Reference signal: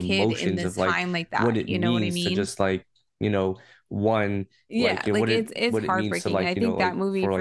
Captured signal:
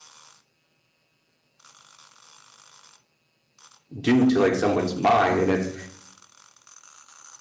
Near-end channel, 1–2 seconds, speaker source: neither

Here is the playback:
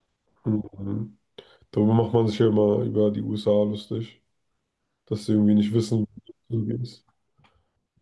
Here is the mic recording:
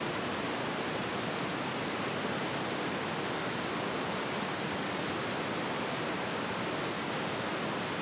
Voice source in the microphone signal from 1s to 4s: neither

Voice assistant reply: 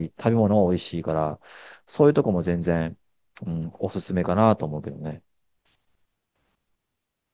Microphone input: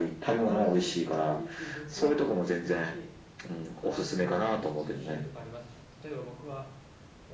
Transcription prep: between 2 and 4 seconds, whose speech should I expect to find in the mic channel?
both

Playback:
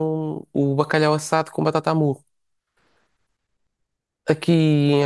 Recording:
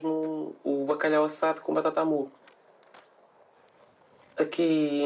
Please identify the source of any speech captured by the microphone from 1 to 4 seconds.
echo only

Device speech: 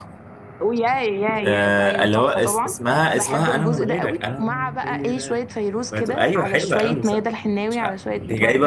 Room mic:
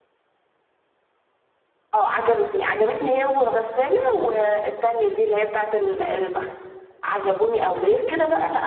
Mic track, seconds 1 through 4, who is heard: user only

